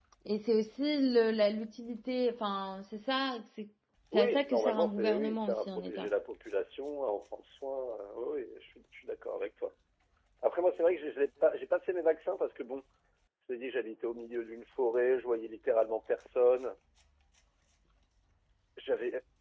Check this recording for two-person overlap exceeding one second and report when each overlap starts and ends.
4.1-6.1

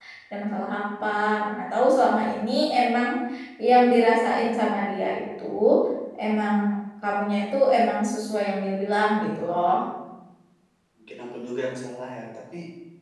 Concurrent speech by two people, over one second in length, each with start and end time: none

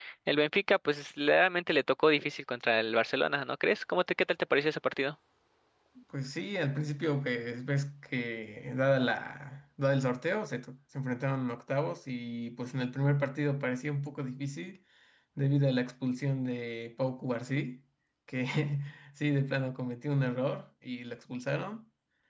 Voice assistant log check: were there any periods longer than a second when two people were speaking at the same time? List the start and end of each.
none

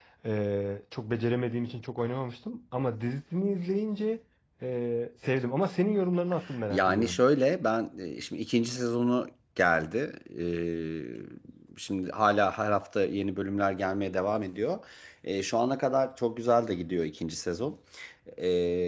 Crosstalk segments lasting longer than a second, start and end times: none

